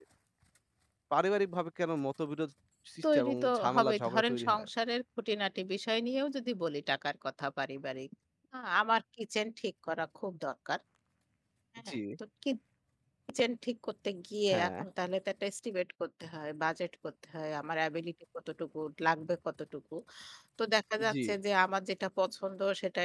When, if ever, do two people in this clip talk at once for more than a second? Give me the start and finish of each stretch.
3.1-4.7

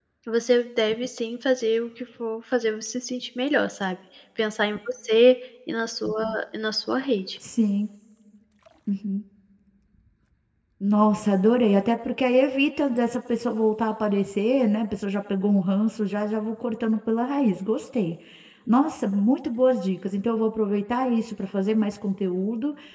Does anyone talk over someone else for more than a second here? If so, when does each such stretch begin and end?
none

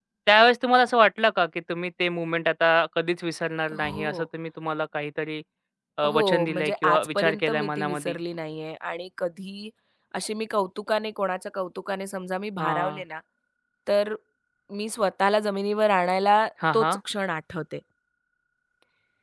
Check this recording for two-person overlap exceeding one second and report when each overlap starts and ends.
6.0-8.2

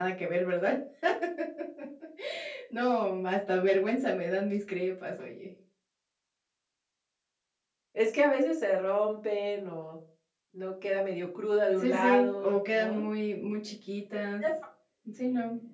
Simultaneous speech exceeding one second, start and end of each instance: 11.8-13.1

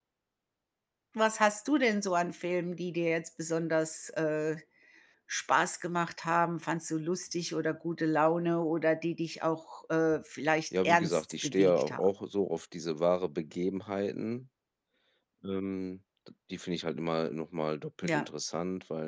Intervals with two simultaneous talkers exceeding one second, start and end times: 10.8-12.1

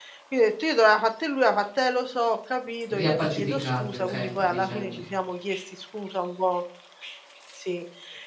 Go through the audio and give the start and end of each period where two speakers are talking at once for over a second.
2.9-5.0

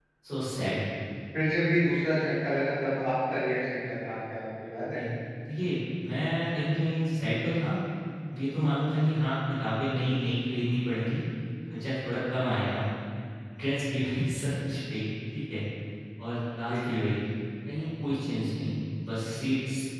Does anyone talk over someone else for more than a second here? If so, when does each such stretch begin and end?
none

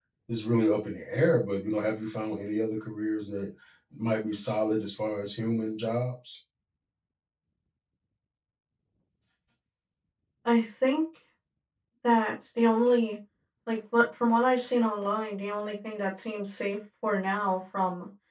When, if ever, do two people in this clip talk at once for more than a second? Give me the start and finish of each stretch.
none

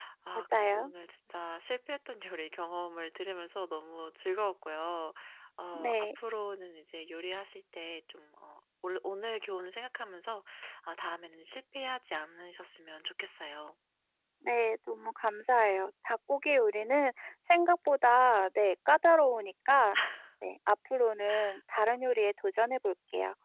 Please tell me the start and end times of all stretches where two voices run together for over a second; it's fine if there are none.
none

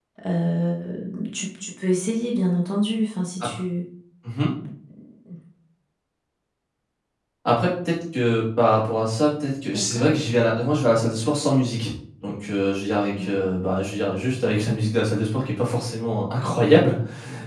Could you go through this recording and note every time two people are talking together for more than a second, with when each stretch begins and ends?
none

